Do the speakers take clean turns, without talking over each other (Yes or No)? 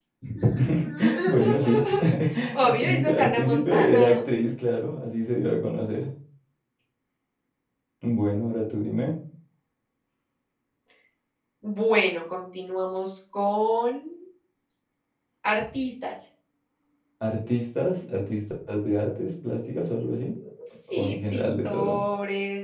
No